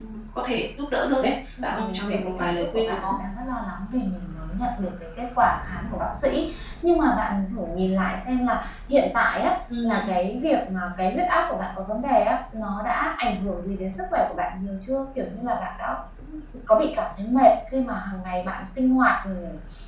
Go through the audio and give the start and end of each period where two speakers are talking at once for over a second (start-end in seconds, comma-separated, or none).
1.6-3.2